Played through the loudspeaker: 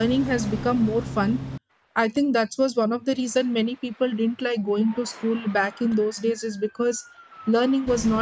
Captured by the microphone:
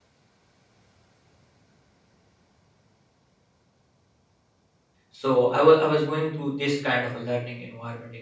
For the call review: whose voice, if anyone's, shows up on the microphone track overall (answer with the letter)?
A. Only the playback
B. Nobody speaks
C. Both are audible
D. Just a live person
D